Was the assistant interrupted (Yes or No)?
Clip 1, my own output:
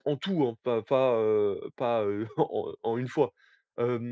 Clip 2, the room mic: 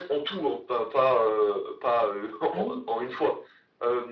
Yes